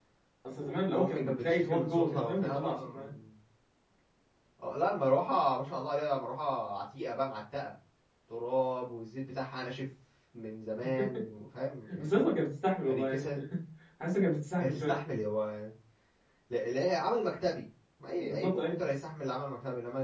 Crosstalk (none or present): present